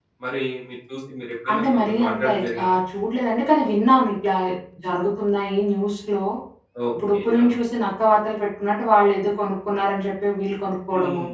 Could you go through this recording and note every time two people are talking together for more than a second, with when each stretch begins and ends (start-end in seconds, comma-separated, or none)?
1.5-2.8